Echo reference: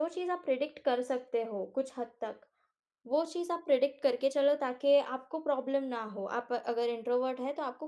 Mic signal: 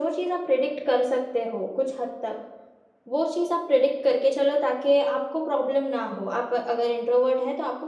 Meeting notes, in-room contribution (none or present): none